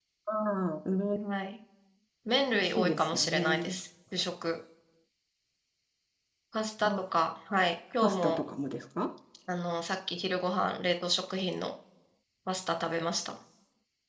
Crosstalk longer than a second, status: present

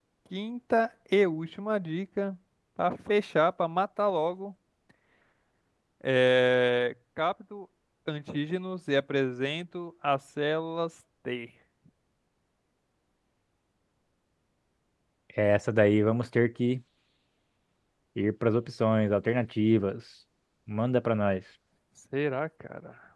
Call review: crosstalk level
none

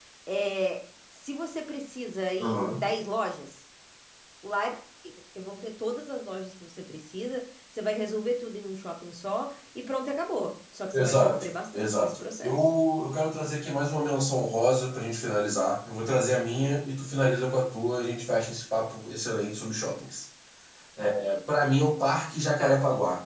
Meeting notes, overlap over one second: present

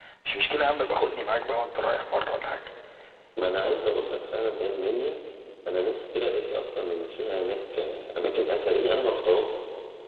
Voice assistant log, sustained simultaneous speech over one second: none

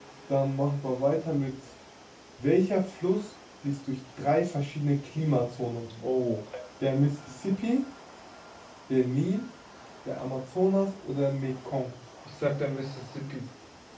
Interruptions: none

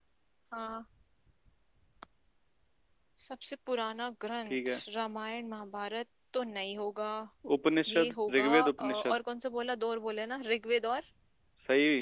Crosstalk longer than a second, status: present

